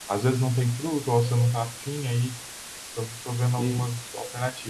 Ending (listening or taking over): listening